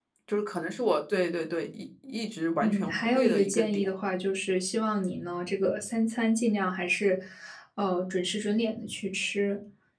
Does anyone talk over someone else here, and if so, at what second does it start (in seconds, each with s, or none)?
2.6 s